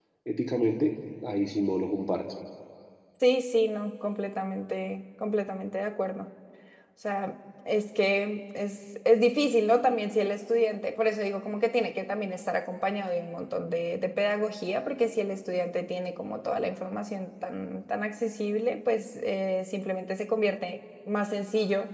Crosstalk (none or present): none